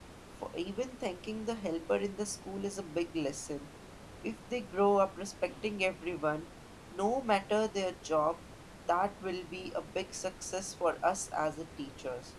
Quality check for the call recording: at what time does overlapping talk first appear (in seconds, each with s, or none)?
none